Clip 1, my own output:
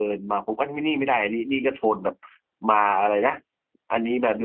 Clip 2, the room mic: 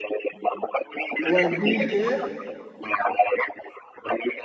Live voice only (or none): หวันดีเก็บ